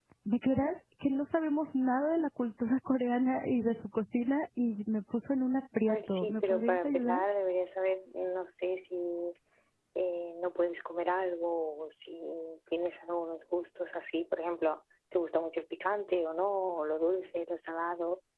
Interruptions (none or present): present